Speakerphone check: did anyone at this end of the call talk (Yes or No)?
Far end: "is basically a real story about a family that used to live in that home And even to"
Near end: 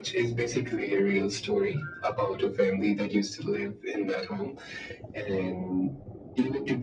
No